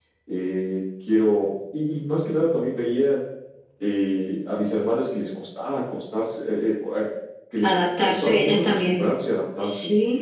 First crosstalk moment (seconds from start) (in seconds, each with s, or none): 7.6 s